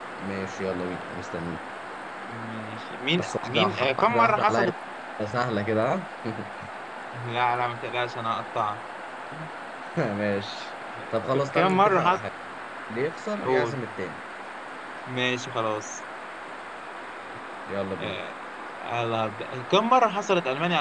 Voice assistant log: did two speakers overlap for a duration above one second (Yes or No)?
Yes